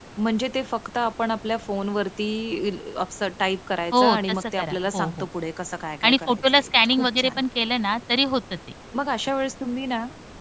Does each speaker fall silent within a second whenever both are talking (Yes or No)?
No